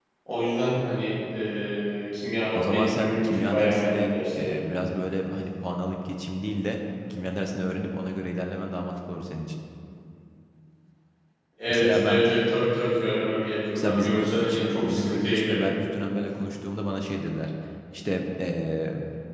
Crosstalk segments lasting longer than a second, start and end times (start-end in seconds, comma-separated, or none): 2.6-4.6, 13.8-15.6